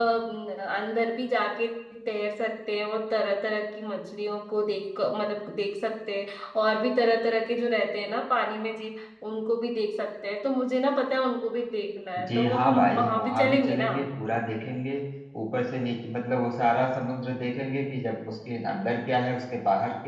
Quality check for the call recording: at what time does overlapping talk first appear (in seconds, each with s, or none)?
12.2 s